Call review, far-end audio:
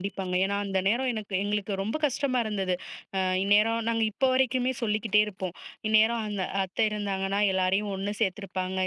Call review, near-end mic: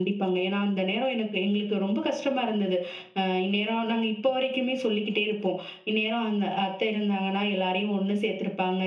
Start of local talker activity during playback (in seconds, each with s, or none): none